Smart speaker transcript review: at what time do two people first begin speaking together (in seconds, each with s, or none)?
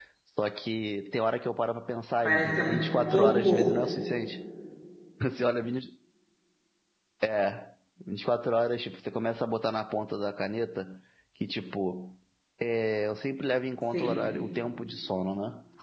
2.2 s